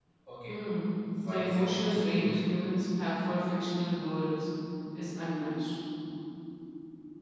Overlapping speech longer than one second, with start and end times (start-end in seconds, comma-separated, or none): 1.2-2.4